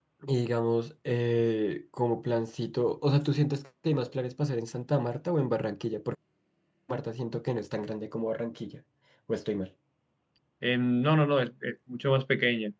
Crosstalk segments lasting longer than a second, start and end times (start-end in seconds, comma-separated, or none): none